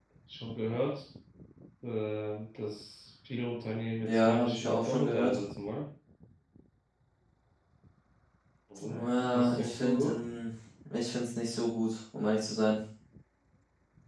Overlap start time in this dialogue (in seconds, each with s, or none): 4.0 s